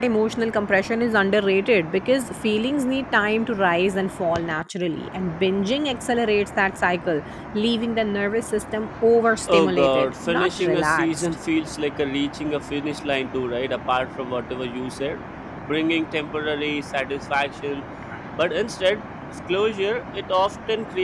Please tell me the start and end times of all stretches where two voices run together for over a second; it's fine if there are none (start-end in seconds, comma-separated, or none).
9.5-11.3